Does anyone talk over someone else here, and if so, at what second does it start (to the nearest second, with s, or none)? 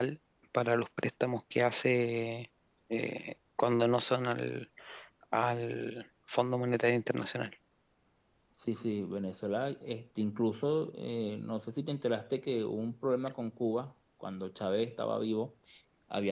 none